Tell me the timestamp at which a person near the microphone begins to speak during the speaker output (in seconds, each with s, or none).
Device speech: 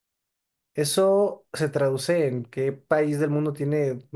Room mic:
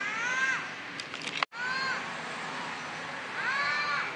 none